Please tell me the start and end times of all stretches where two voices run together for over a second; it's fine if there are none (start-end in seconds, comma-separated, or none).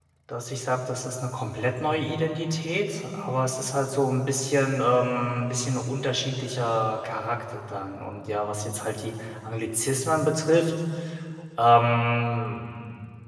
none